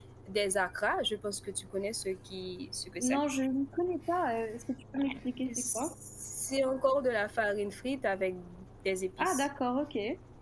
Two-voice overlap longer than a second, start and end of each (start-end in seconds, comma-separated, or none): none